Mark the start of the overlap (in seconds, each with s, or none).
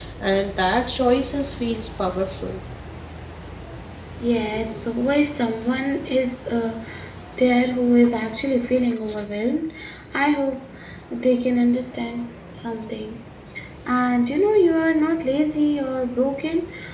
none